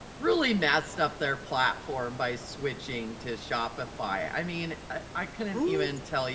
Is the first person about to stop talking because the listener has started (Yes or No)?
No